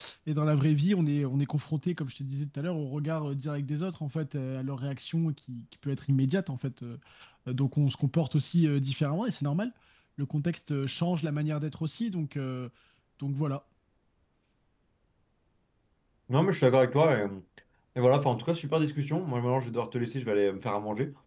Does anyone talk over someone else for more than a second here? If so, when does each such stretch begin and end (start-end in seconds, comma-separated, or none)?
none